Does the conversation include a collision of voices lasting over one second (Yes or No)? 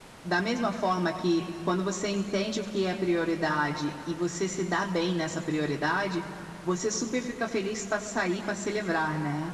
No